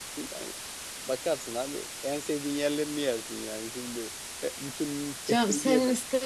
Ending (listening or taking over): taking over